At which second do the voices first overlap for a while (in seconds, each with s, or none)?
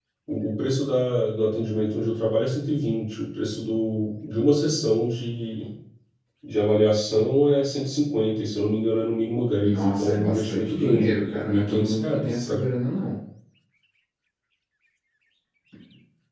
9.6 s